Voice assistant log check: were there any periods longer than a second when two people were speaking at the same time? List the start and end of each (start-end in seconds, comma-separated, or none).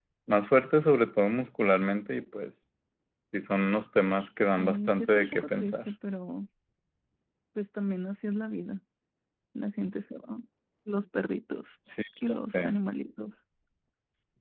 4.6-5.9